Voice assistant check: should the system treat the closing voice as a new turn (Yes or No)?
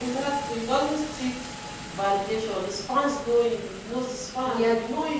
No